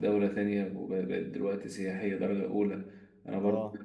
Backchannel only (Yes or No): Yes